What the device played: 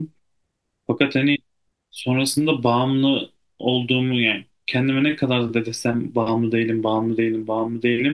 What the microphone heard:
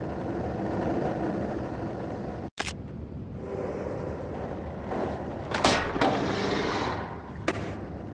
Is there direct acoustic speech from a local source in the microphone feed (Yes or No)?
No